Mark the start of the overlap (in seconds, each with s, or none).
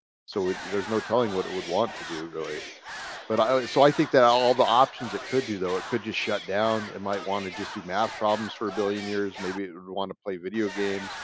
none